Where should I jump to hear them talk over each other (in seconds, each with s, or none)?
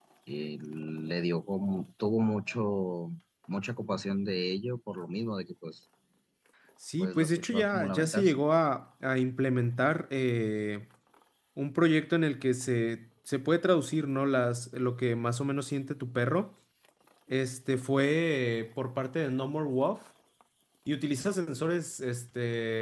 7.0 s